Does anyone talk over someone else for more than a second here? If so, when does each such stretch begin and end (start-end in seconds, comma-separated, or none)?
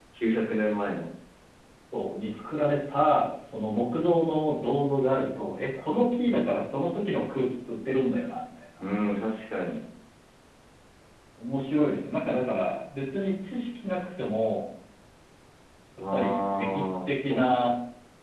16.1-17.7